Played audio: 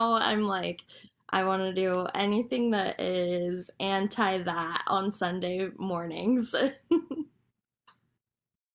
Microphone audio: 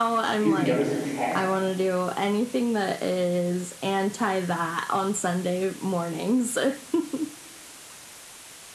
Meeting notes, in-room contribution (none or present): present